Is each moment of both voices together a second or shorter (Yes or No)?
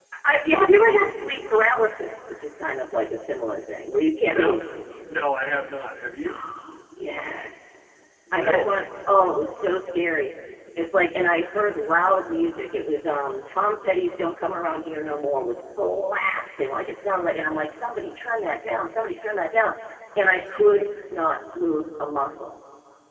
Yes